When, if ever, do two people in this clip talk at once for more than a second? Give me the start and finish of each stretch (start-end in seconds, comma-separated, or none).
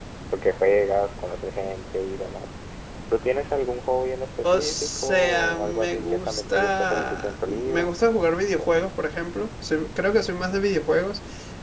4.4-7.9